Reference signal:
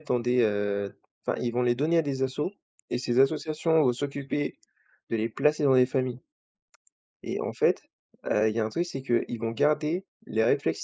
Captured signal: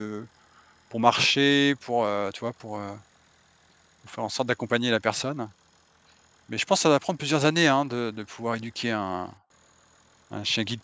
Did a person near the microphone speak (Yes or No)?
Yes